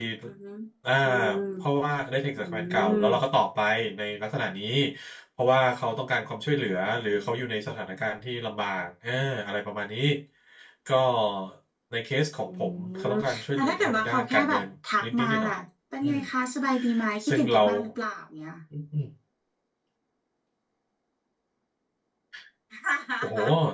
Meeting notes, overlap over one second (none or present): present